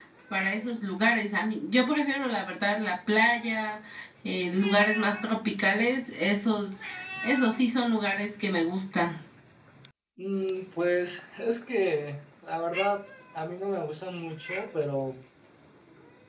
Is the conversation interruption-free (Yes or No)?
Yes